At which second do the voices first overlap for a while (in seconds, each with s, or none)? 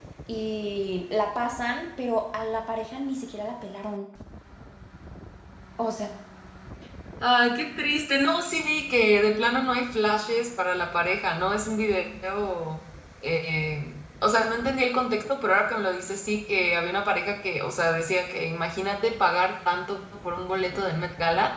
none